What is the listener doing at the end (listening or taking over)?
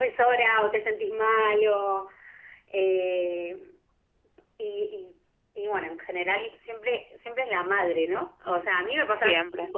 listening